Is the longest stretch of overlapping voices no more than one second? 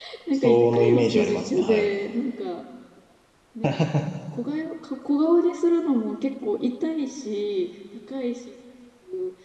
No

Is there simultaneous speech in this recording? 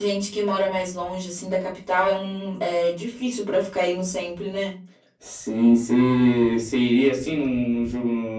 No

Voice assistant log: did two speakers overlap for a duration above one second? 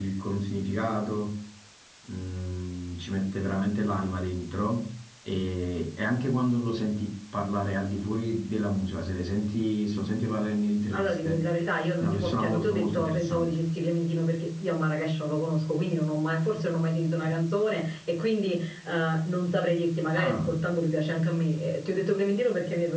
Yes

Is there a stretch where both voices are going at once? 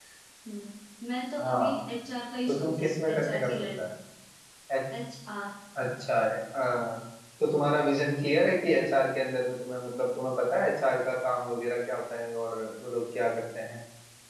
Yes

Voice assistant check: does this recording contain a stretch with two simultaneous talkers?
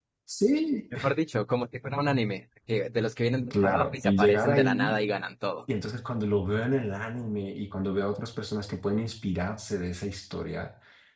Yes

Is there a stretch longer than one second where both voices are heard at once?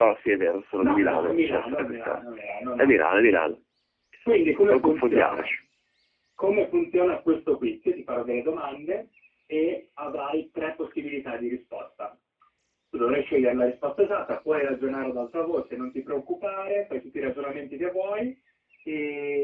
Yes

